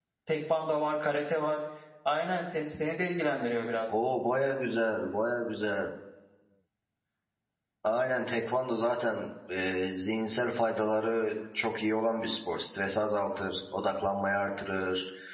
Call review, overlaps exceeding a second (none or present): none